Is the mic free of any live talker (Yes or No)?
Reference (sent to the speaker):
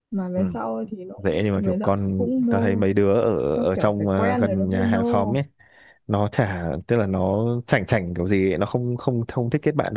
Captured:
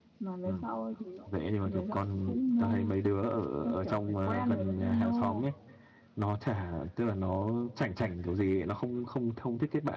Yes